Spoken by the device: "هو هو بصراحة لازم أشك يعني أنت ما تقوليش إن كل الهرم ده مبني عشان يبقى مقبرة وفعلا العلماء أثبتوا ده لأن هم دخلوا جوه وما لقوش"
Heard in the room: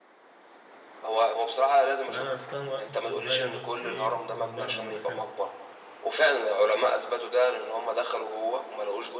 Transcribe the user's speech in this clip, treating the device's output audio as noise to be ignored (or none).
لا أنا رحتها مرة وأنا صغير بس إيه من بره ما دخلتش